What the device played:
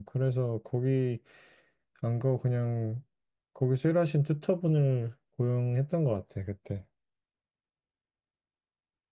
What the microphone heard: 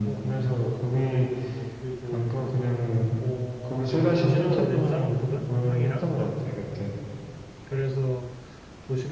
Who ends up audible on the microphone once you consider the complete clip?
both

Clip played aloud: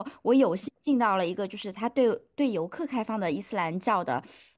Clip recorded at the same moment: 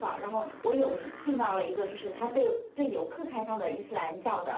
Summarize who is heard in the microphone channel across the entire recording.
echo only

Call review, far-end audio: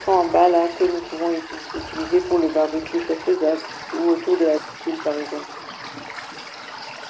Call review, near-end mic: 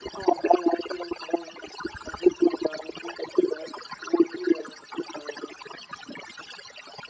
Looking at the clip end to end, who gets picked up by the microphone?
echo only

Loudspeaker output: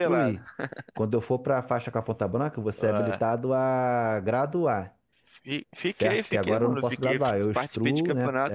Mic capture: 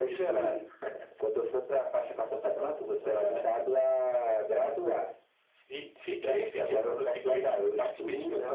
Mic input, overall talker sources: echo only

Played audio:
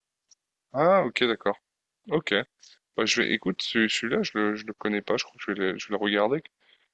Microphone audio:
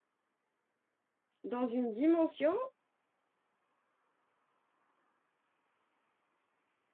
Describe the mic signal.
user only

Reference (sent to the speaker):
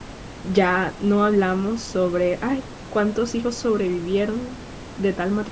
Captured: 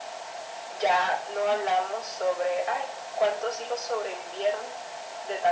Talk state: echo only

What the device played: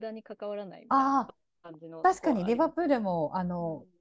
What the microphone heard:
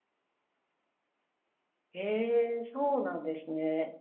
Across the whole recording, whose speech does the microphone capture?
user only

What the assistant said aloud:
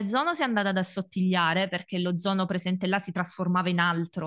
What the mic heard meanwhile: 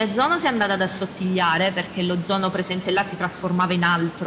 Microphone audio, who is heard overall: echo only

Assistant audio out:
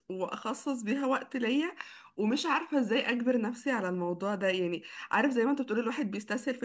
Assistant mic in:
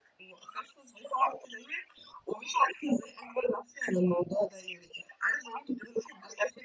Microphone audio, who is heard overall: echo only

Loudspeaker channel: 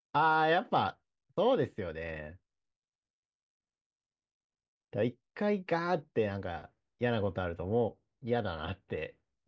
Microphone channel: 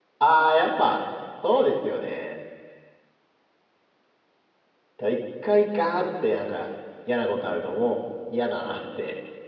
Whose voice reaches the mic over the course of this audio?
echo only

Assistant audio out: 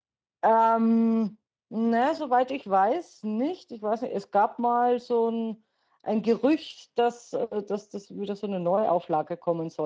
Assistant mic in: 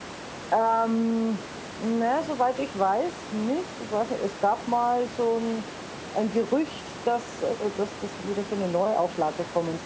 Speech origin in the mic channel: echo only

